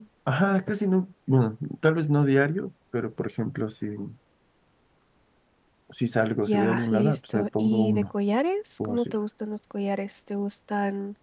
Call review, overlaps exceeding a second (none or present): present